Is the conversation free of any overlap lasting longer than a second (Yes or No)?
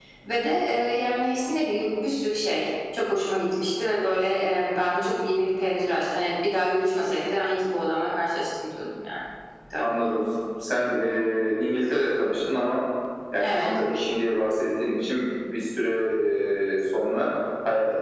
Yes